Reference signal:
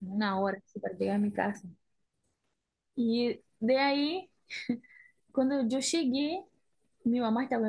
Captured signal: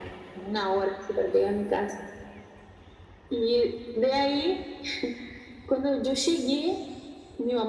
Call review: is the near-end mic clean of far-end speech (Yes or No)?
No